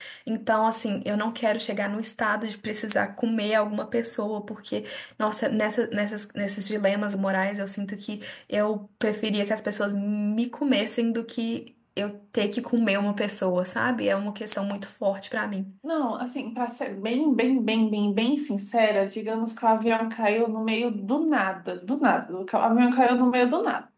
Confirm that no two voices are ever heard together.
Yes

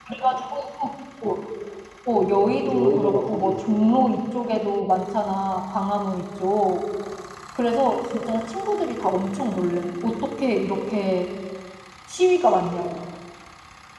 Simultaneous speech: Yes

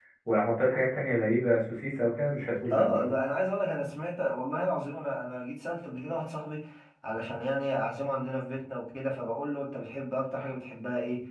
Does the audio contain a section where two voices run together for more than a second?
No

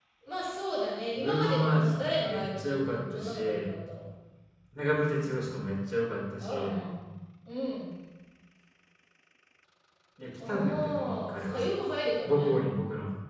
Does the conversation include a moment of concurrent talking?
Yes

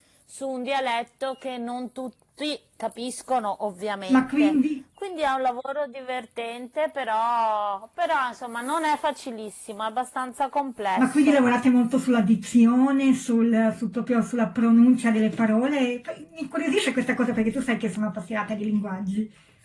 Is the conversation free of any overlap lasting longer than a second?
Yes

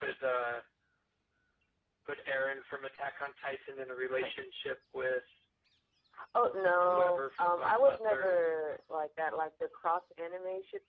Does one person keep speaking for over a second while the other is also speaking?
Yes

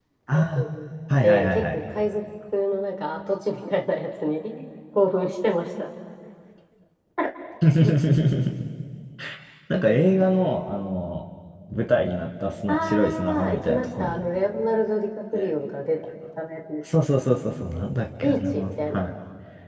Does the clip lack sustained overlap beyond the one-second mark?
No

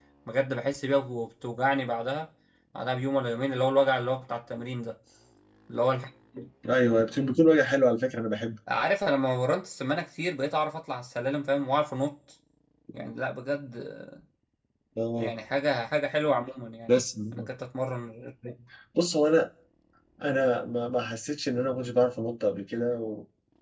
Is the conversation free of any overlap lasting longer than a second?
Yes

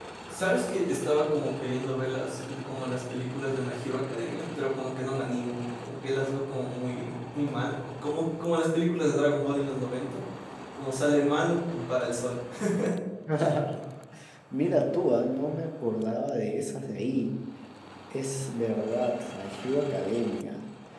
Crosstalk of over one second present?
No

